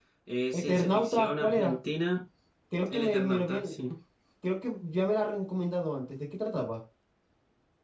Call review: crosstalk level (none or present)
present